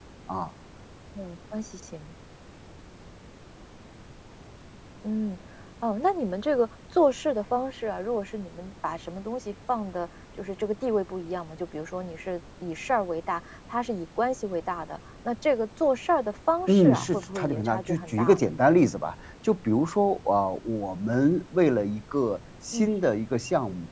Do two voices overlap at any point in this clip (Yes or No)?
Yes